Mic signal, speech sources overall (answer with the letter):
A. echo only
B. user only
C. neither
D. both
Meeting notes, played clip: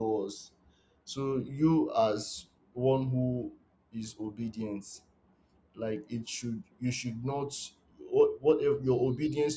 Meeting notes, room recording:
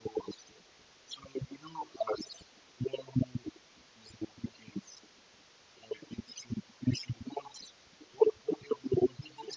A